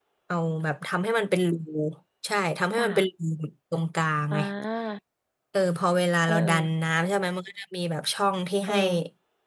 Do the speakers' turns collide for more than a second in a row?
No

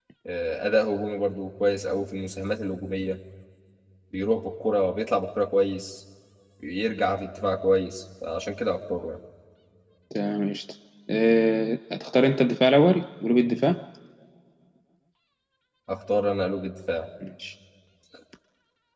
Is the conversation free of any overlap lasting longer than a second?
Yes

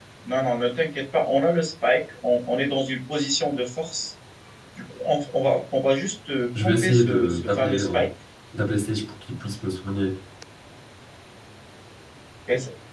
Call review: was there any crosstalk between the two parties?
Yes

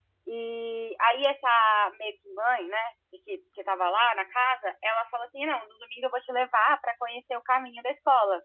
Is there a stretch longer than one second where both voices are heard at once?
No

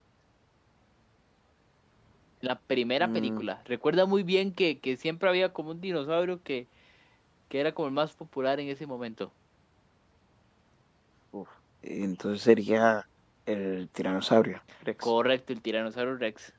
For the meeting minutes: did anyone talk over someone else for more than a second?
No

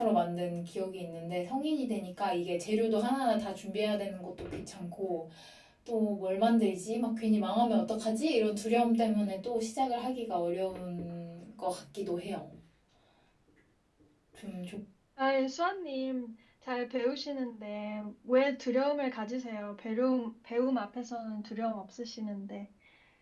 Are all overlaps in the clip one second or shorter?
Yes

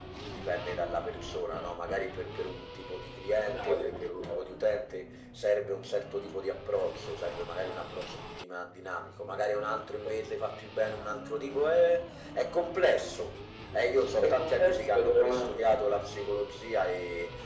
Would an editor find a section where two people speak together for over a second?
Yes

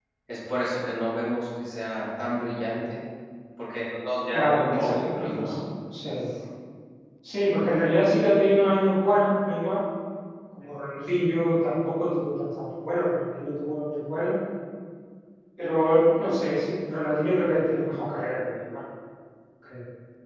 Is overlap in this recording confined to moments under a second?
No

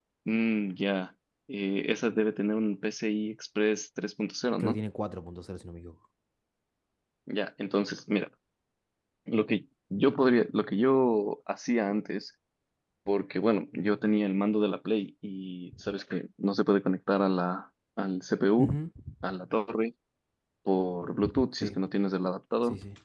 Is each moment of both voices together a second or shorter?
Yes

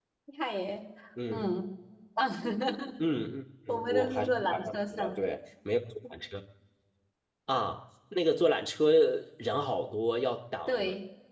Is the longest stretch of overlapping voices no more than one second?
No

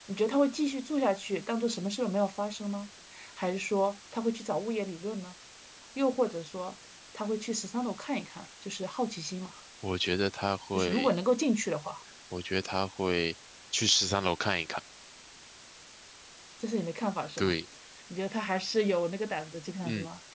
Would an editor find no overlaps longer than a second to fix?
Yes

